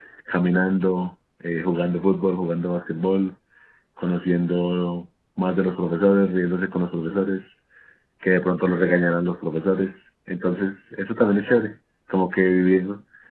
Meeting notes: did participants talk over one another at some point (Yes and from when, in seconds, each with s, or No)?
No